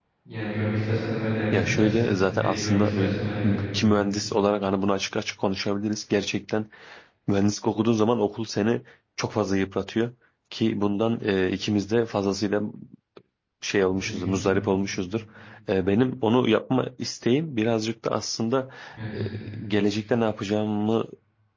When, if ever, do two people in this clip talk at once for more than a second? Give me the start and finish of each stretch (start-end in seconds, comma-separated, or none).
1.5-3.2